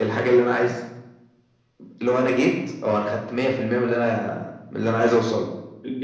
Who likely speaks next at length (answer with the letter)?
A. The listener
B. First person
A